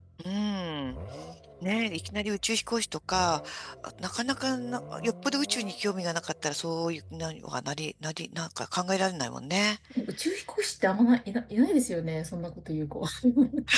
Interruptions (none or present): none